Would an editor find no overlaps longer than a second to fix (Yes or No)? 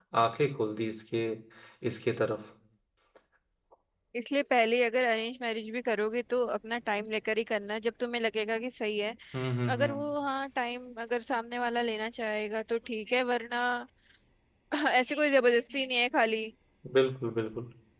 Yes